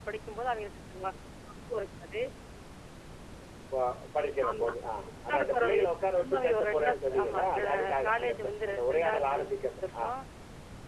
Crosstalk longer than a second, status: present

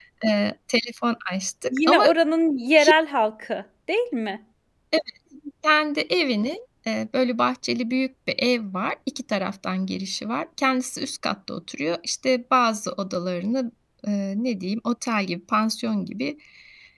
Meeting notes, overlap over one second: none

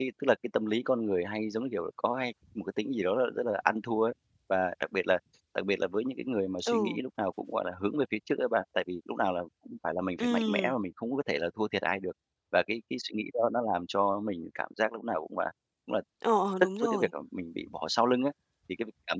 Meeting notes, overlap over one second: none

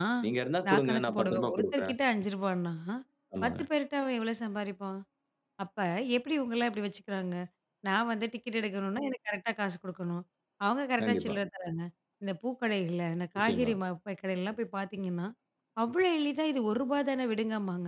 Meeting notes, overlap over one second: present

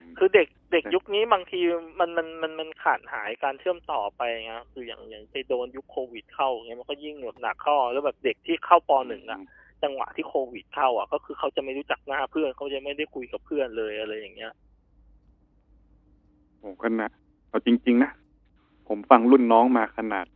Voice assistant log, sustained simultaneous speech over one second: none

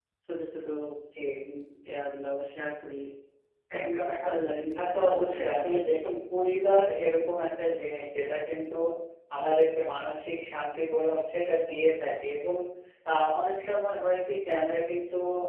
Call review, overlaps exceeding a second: present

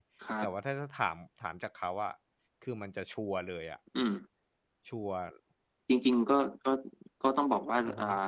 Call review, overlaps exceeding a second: none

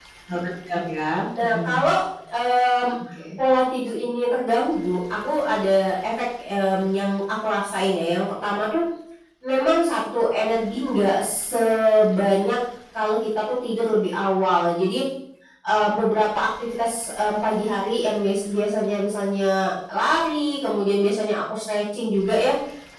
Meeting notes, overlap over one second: none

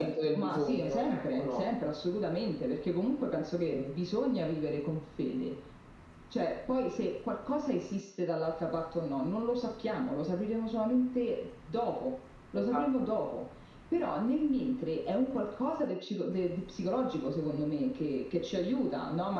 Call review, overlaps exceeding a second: present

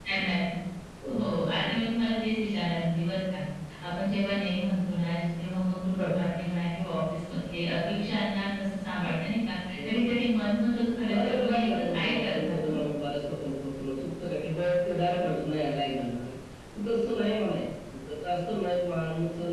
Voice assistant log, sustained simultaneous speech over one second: present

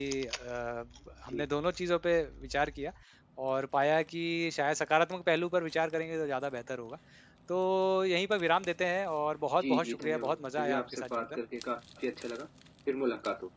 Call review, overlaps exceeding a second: present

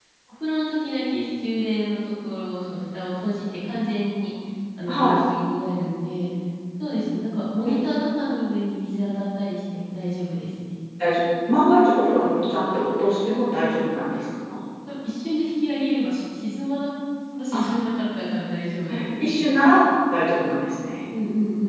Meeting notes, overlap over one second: none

